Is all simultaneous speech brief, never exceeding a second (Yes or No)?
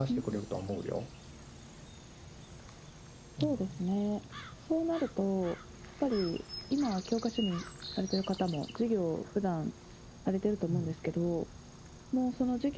Yes